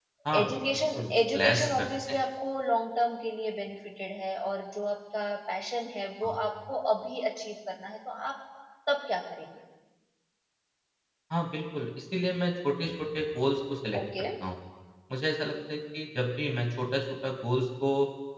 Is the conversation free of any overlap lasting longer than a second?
No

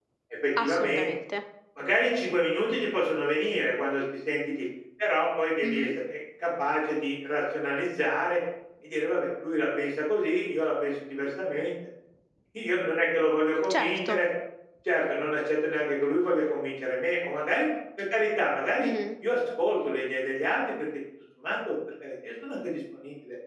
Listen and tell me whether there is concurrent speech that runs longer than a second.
No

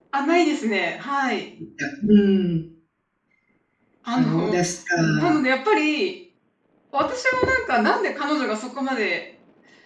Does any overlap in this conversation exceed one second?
No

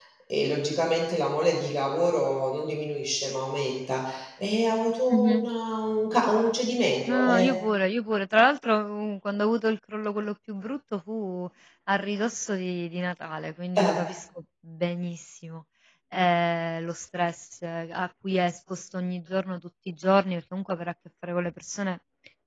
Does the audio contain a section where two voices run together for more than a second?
No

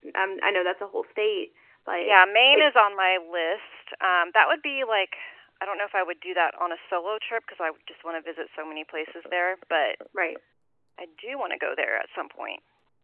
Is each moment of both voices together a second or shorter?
Yes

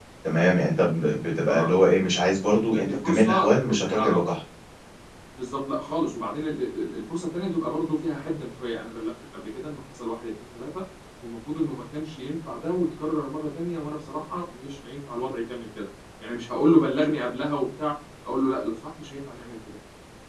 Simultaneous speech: Yes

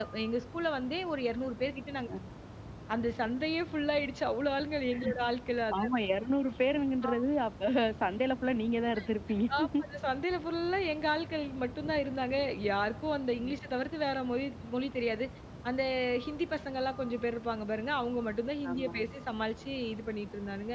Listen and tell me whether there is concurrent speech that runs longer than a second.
No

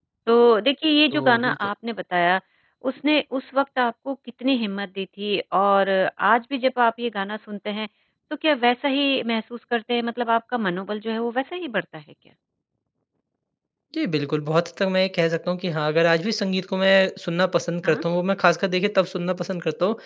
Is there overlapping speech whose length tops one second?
No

